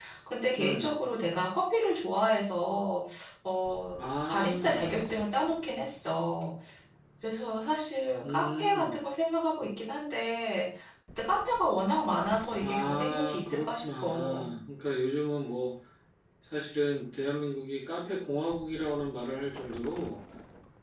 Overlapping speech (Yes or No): Yes